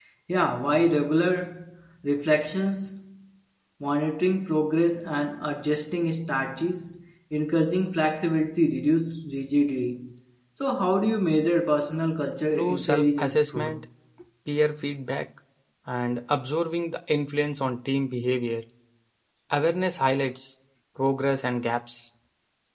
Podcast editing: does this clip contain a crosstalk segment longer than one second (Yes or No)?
Yes